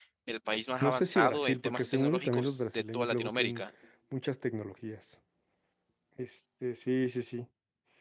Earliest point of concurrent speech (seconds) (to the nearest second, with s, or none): 1 s